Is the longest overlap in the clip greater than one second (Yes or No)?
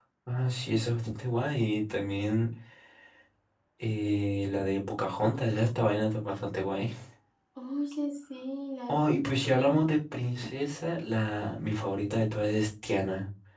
No